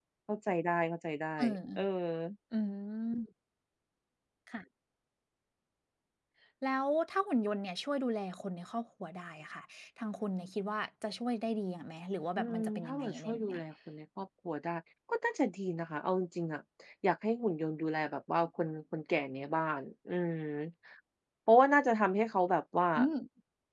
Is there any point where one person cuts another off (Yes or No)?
Yes